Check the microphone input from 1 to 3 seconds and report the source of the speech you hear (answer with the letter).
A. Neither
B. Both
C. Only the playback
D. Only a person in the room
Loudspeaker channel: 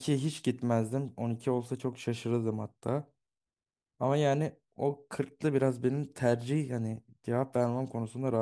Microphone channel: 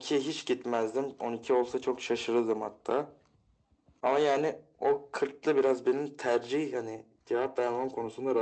C